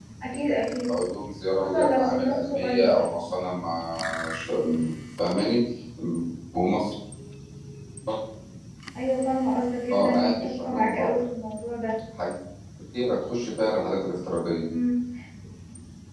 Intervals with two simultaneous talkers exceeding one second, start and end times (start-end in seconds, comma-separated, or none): 1.6-3.0, 9.9-11.2